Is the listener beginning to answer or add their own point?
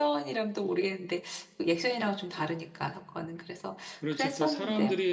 Yes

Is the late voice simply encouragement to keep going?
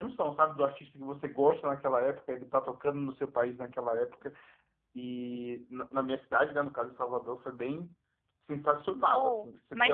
No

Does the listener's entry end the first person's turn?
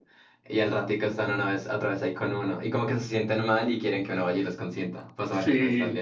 Yes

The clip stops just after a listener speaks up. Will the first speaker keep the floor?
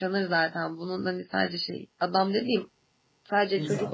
Yes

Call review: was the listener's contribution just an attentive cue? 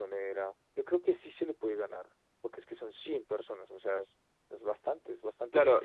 No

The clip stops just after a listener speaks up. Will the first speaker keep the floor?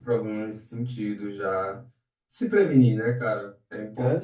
No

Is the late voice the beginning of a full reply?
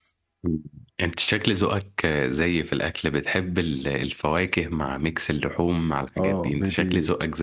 Yes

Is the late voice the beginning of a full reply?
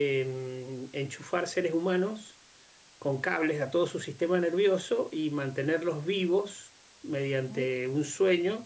No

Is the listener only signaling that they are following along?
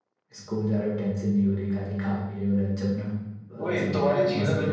No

